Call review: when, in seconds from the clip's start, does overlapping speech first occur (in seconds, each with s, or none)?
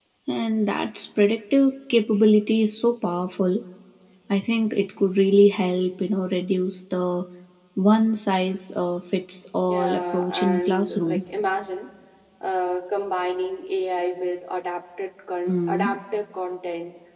9.7 s